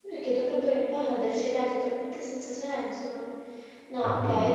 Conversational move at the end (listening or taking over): listening